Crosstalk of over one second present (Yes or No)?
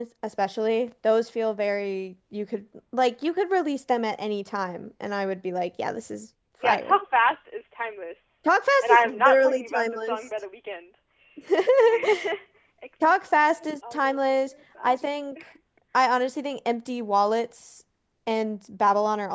Yes